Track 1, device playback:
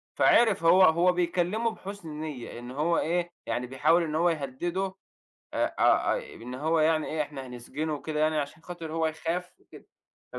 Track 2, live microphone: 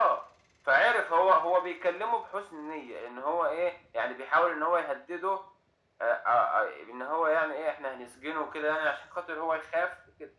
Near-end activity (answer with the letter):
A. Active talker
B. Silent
B